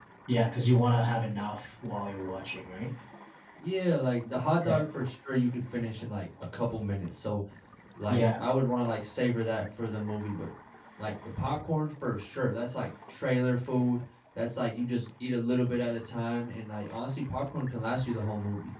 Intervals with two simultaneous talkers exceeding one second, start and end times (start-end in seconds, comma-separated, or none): none